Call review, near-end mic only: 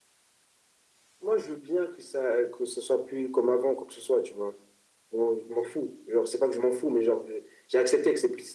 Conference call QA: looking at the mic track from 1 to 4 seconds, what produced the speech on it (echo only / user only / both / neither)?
echo only